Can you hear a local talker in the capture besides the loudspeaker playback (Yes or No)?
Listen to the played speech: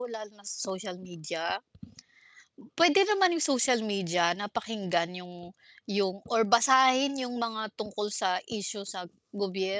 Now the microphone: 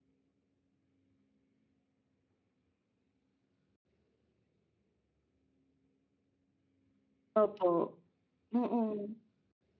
Yes